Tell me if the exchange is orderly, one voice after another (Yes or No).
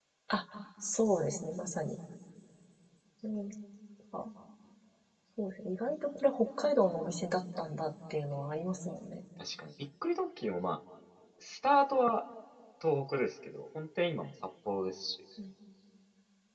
Yes